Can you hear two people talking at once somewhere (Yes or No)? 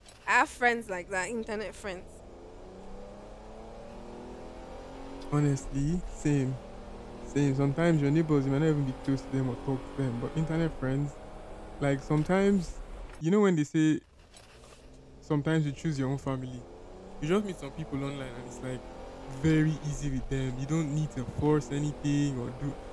No